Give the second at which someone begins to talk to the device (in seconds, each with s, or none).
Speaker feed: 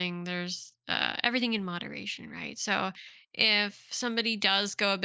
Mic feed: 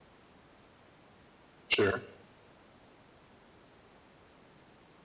1.7 s